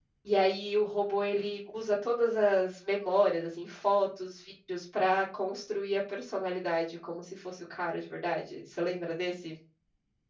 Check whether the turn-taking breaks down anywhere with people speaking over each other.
No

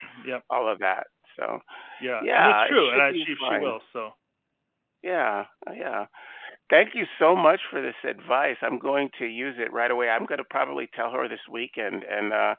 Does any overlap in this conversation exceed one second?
Yes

